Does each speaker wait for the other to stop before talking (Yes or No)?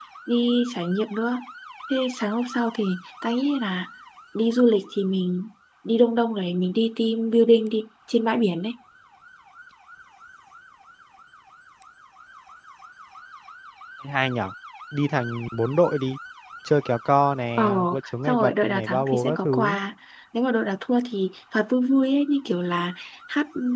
No